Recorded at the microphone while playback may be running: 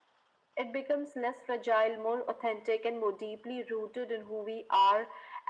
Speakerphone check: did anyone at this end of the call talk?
No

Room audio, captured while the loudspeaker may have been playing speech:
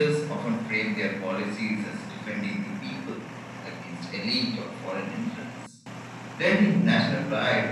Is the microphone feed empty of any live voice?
Yes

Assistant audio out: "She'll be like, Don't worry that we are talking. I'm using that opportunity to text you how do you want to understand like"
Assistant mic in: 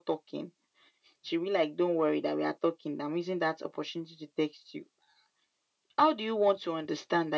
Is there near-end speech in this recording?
No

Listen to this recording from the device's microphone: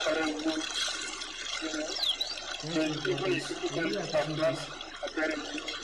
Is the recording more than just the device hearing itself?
Yes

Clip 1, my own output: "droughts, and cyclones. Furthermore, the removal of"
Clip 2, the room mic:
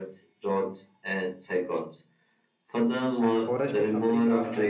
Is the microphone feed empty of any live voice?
No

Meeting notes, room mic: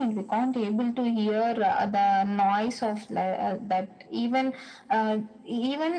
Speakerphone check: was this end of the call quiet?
Yes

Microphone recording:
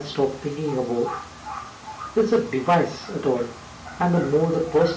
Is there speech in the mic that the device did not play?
No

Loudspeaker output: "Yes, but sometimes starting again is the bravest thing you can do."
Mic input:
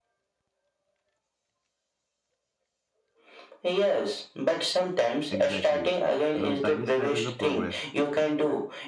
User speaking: Yes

